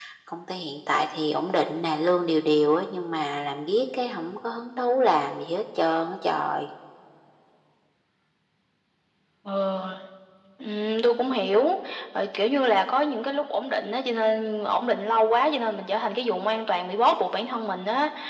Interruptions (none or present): none